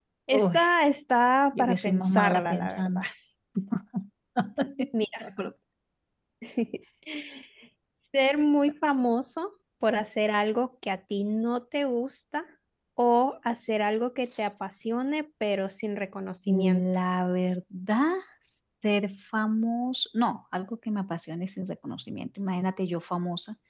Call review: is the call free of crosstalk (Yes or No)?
No